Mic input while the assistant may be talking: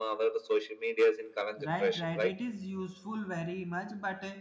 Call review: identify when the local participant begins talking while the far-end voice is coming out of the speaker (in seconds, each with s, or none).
1.6 s